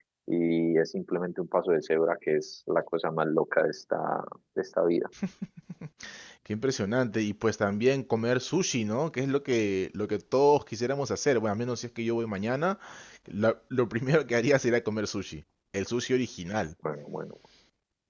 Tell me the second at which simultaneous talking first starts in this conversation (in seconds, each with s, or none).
none